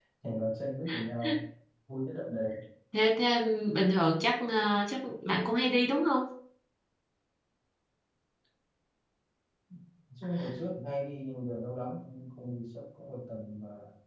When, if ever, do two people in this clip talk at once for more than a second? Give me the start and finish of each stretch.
none

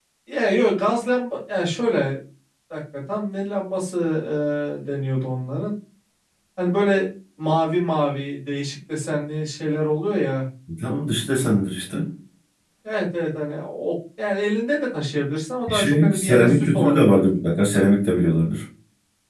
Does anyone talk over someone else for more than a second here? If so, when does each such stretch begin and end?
15.7-17.3

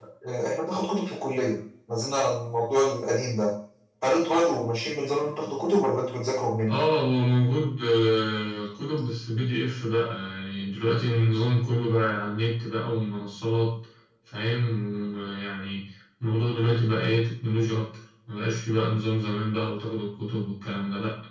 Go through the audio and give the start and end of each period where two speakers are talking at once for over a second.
none

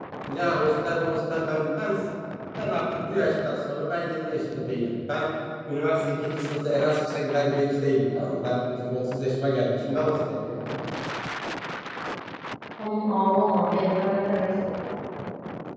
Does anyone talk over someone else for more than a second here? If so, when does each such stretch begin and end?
none

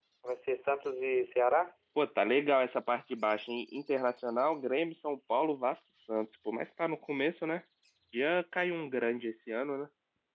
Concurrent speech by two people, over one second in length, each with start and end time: none

